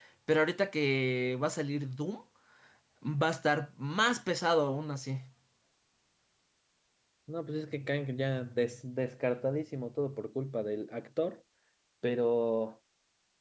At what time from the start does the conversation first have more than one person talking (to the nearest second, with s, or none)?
none